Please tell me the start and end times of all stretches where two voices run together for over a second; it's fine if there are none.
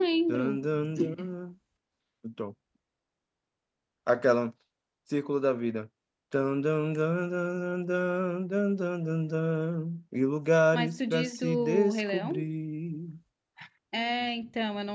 10.7-12.5

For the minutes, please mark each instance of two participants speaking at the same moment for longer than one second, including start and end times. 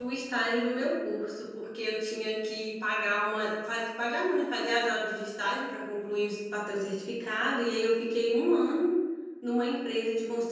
none

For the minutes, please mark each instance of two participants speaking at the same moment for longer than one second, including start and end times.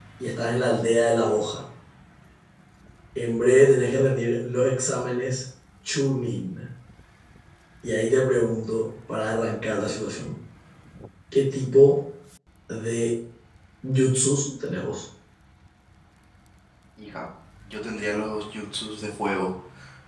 none

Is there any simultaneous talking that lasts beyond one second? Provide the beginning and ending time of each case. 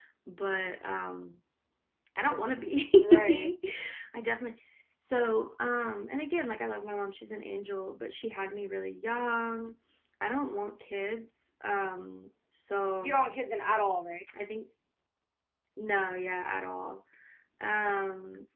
none

